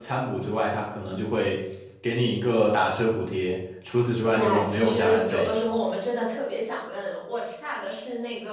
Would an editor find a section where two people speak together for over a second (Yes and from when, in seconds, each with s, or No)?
Yes, from 4.3 s